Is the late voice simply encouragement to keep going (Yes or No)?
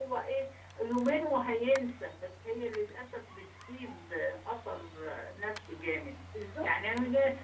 Yes